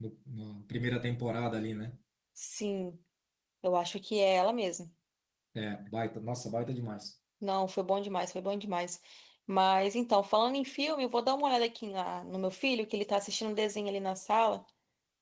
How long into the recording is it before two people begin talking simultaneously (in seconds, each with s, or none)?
none